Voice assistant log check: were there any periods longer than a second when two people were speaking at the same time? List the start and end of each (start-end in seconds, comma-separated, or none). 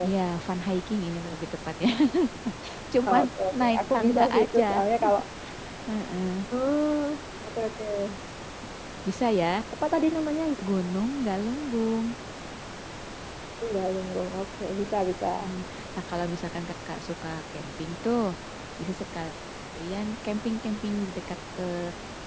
3.1-4.6